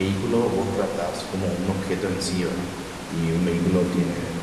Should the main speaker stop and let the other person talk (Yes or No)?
No